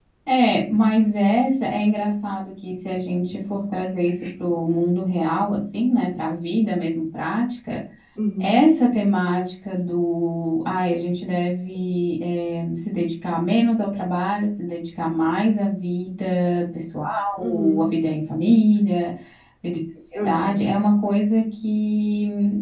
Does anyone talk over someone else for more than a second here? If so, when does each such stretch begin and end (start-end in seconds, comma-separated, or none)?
none